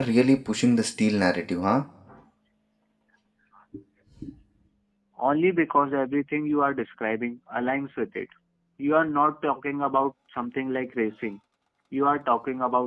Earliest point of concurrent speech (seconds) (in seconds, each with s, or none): none